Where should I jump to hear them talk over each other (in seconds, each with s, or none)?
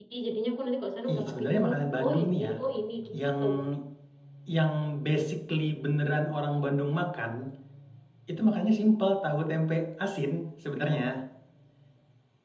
1.1 s